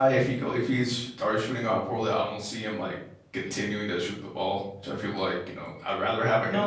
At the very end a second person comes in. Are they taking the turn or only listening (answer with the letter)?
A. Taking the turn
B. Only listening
A